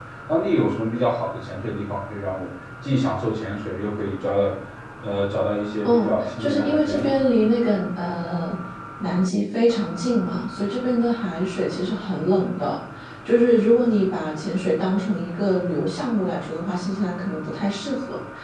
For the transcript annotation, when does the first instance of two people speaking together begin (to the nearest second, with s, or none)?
6 s